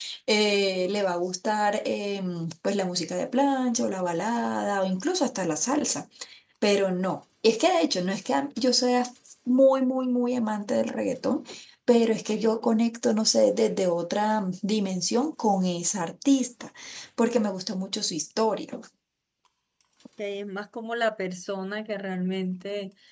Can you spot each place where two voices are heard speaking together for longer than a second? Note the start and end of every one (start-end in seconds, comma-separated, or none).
none